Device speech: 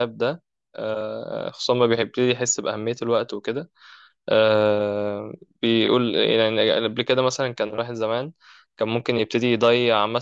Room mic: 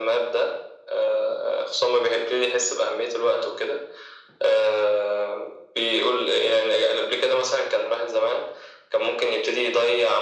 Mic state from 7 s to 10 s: echo only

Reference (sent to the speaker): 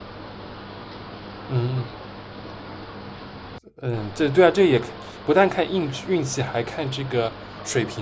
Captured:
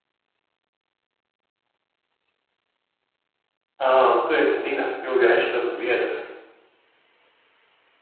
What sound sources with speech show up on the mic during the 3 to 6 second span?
user only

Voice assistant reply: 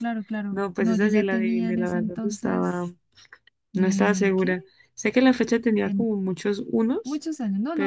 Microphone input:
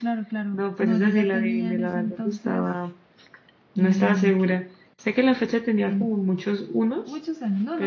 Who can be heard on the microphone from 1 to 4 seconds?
echo only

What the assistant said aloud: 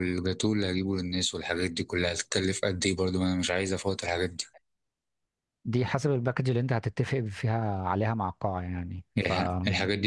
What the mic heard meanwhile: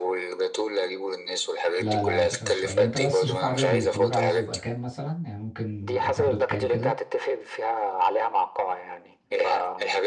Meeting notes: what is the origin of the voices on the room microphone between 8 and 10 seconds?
echo only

